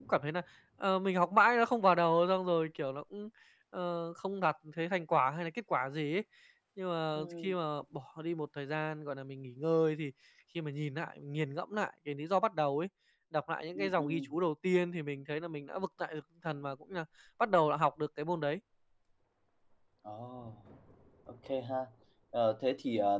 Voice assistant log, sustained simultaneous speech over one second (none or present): none